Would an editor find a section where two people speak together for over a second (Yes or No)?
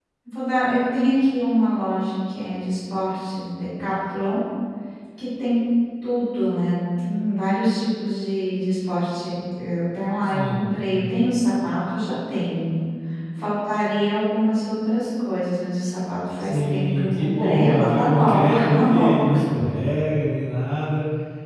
Yes